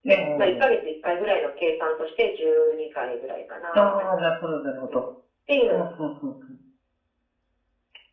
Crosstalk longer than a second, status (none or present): none